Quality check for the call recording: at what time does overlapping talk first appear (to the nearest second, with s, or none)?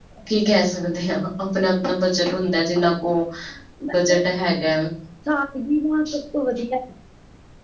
none